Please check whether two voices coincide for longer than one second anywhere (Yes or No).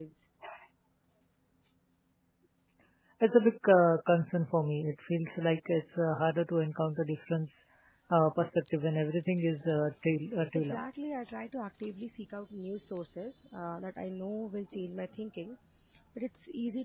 No